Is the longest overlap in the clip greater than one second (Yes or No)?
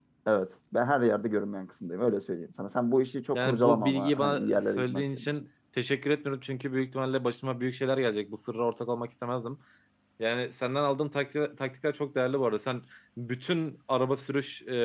Yes